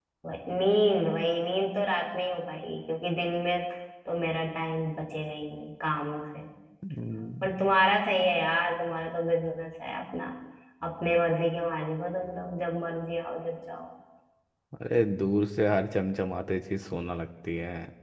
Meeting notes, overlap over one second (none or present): none